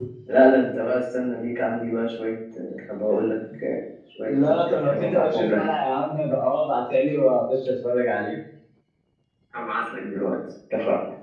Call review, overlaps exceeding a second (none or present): present